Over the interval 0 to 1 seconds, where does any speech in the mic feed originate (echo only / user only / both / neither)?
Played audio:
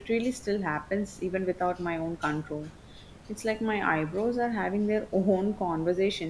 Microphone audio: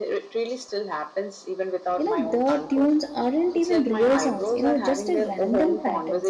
echo only